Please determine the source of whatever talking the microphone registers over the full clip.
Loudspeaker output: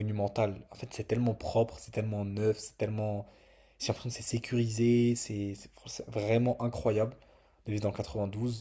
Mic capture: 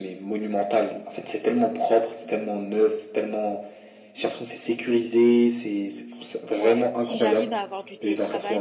both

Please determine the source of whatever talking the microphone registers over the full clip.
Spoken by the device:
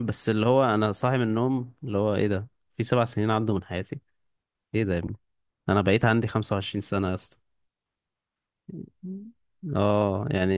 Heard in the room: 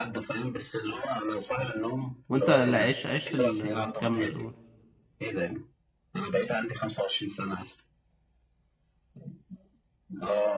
both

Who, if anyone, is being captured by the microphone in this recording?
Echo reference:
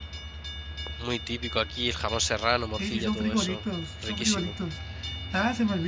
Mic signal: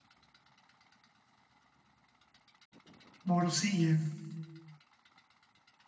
user only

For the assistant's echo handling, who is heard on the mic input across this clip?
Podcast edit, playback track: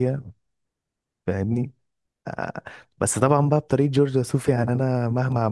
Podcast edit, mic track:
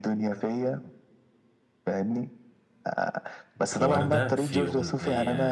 both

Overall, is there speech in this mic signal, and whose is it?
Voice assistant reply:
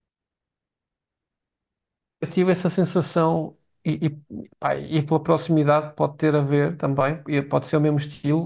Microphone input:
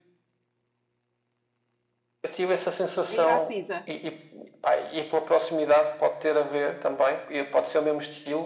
both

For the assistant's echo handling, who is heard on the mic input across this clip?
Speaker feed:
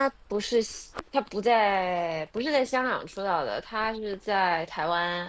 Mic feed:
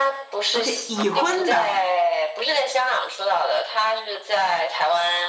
both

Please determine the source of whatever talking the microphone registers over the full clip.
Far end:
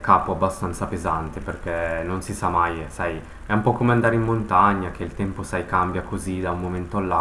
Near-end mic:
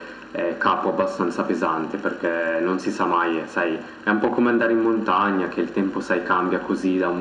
echo only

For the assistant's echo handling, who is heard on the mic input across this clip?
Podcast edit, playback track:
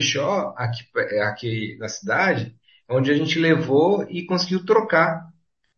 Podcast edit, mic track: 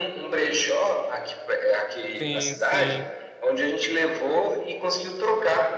both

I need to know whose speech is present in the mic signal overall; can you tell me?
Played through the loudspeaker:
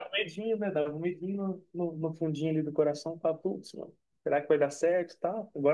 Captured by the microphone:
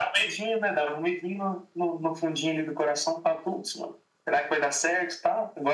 echo only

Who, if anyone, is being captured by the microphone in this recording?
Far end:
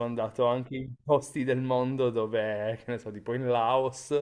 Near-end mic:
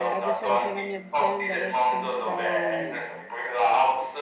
both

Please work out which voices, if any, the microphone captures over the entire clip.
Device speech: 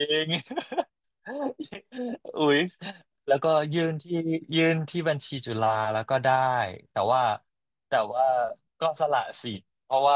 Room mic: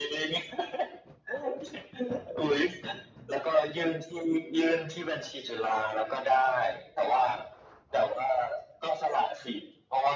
echo only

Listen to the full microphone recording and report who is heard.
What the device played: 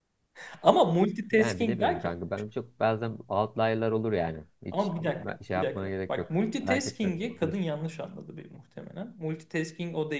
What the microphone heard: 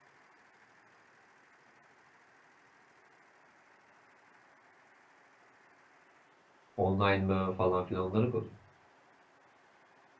user only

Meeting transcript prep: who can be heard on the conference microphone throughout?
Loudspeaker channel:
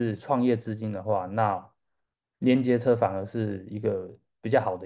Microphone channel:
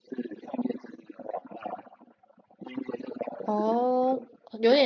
both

